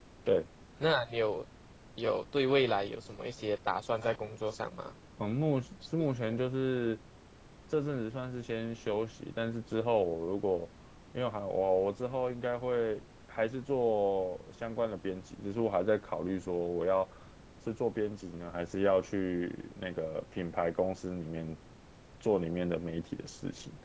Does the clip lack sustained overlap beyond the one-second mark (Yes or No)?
Yes